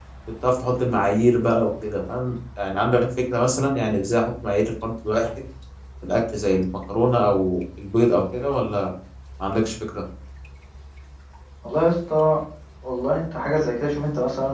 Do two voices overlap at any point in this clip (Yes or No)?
No